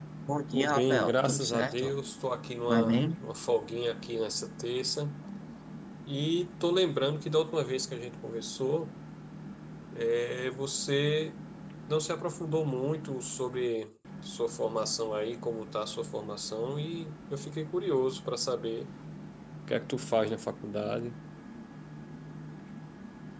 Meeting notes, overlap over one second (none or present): present